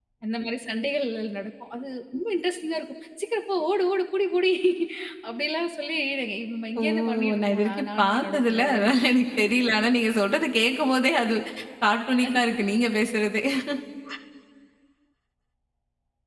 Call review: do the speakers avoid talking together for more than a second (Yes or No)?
No